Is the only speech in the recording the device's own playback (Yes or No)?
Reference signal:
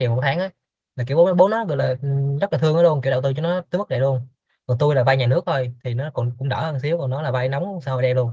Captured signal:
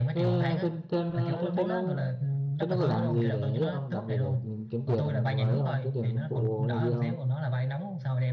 No